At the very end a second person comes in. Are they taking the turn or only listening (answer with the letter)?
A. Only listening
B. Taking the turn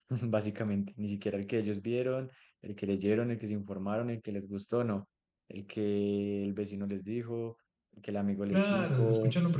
B